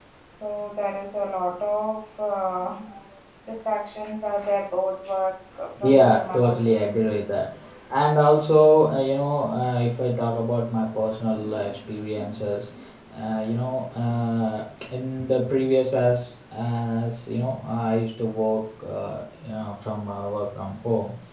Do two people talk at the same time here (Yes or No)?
Yes